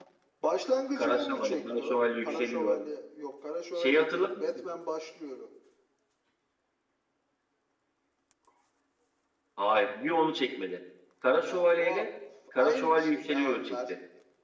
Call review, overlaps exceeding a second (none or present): present